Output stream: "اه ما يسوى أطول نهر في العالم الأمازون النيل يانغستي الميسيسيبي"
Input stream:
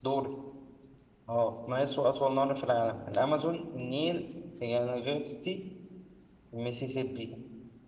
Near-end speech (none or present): none